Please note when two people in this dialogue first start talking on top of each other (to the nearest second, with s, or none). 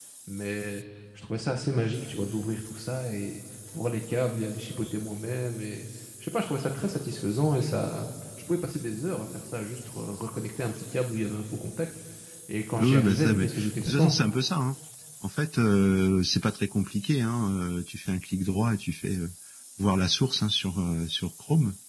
13 s